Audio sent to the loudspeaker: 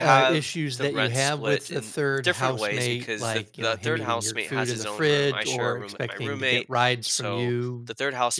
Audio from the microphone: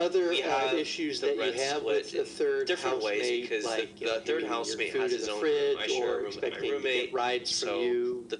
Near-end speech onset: none

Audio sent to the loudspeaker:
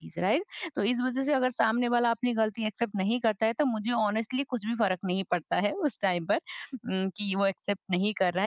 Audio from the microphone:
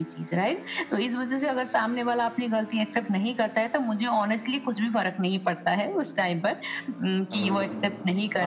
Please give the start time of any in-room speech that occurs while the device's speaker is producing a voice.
7 s

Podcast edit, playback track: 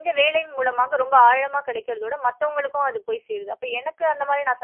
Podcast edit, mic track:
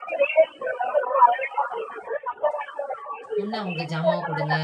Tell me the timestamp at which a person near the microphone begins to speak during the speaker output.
3 s

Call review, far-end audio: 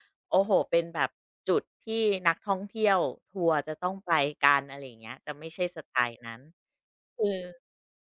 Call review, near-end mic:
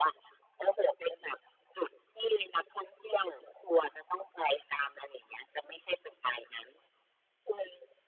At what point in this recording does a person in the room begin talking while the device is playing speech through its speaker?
none

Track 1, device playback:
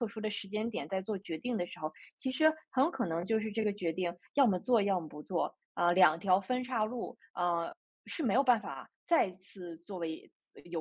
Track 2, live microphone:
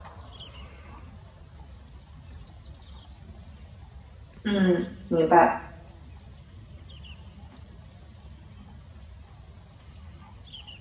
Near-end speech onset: 4 s

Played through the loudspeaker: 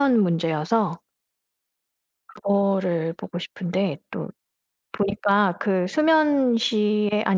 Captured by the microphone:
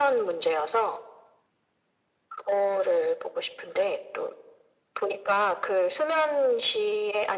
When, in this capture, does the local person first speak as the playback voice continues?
none

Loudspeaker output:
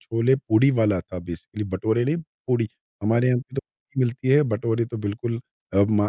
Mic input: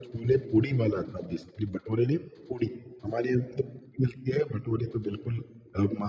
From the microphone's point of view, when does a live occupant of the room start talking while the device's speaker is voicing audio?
none

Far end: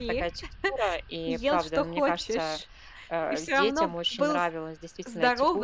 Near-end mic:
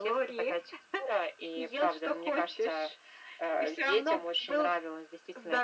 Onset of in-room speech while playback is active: none

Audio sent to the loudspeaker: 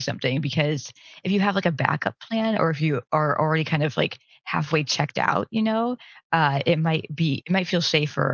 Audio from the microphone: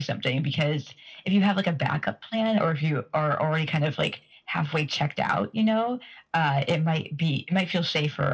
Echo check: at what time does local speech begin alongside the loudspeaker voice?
none

